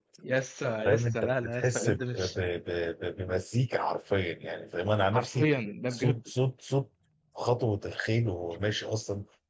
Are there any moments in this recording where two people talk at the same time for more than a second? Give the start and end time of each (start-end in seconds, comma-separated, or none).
0.8-2.4